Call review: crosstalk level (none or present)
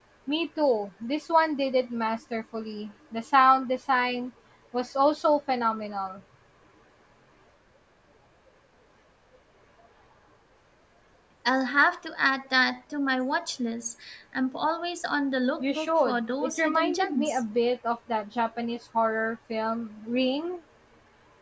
present